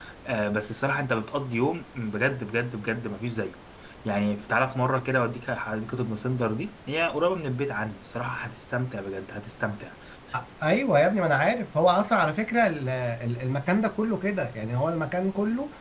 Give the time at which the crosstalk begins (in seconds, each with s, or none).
none